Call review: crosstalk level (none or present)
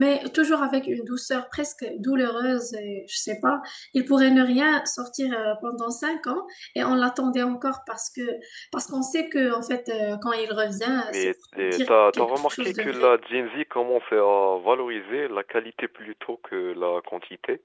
present